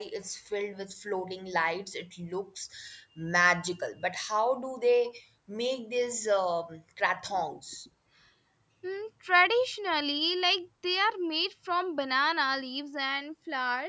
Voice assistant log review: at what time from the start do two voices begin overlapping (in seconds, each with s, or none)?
none